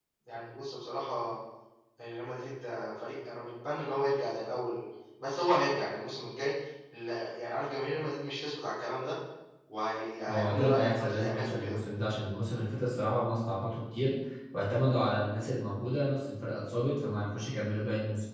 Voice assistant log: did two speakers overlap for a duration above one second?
Yes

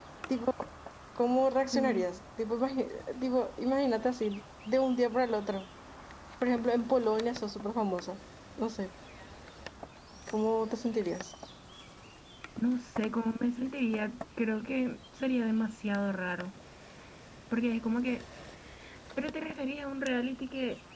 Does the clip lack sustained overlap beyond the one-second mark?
Yes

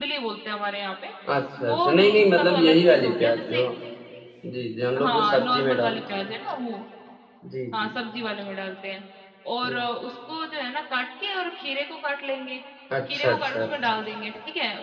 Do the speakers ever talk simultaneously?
Yes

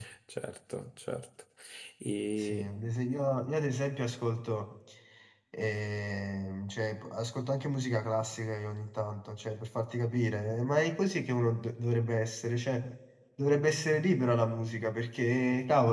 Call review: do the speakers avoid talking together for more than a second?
Yes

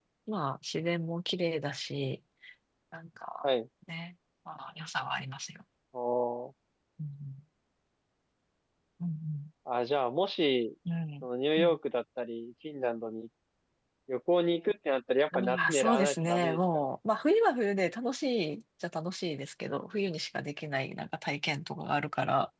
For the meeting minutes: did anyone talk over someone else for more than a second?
Yes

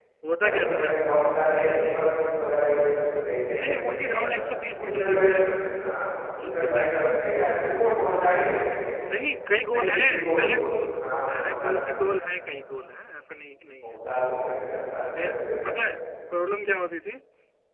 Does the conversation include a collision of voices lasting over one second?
Yes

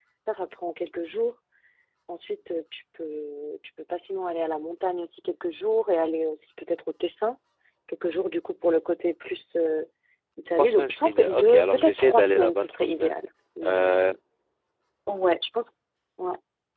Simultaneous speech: Yes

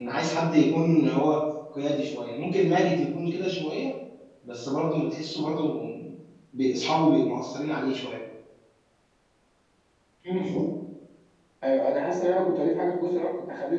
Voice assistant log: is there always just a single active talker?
Yes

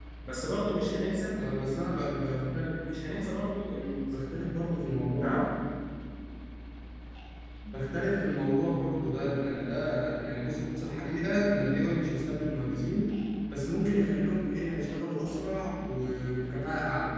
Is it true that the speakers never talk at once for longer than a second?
Yes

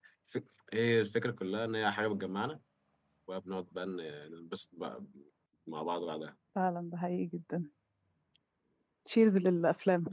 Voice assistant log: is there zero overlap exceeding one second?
Yes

